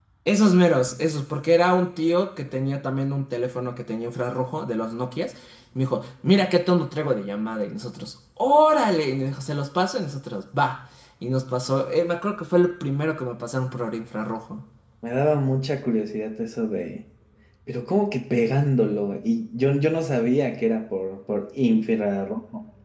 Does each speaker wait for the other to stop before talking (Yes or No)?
Yes